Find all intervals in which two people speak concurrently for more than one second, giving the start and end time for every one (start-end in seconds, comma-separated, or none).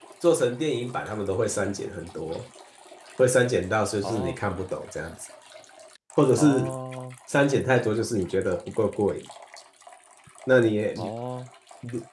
none